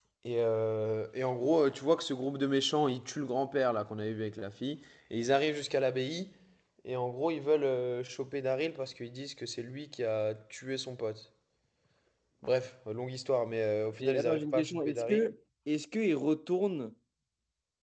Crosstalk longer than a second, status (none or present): present